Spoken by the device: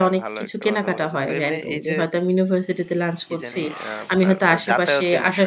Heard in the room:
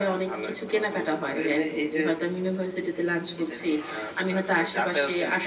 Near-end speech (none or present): none